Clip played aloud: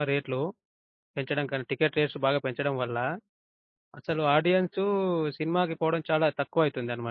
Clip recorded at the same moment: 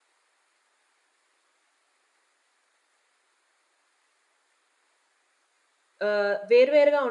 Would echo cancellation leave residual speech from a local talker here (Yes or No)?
Yes